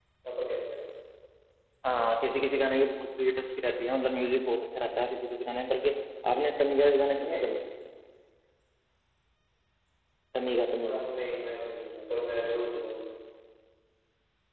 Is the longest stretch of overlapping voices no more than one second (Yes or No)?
Yes